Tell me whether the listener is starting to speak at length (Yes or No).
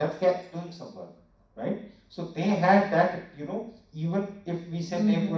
No